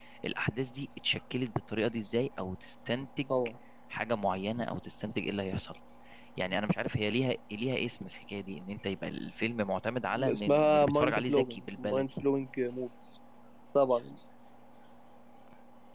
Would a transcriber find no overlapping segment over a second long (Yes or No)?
No